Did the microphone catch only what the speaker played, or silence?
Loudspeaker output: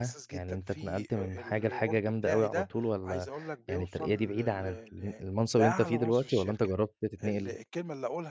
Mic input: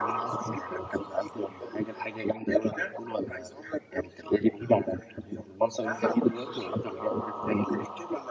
Yes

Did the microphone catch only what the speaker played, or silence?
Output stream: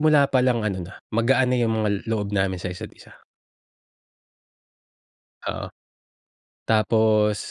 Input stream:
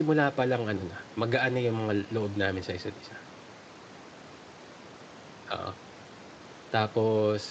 Yes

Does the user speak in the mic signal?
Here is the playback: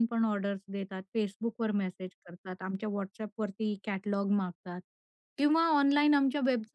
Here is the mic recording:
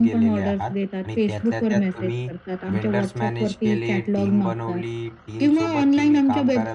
Yes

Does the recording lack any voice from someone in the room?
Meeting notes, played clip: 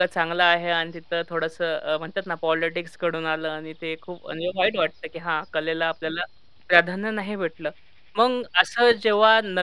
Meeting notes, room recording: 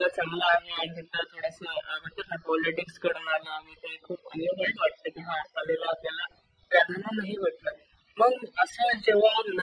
Yes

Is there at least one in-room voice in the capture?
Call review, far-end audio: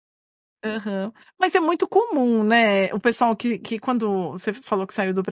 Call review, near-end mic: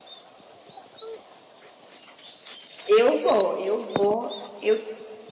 Yes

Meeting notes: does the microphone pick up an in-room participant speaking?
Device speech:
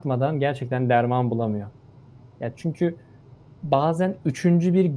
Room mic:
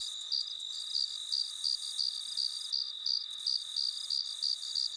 No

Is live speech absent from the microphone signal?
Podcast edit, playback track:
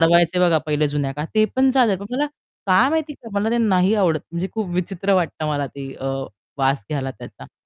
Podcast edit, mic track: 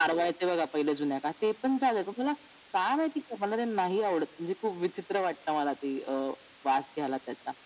Yes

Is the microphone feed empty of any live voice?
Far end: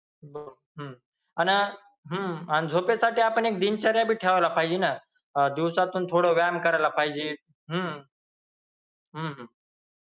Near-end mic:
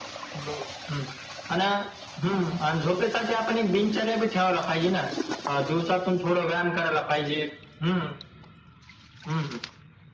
Yes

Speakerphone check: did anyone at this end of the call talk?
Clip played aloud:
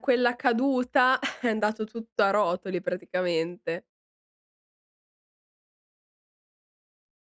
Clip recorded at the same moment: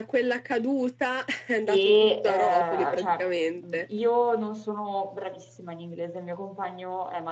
Yes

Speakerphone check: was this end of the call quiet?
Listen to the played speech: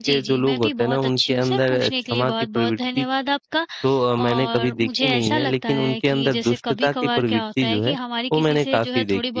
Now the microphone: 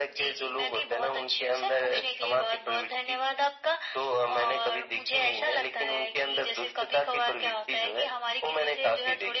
Yes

